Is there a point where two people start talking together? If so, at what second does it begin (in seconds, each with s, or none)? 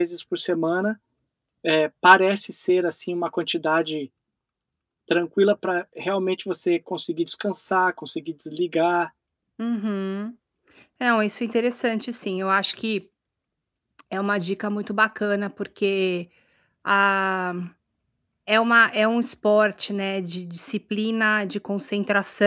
none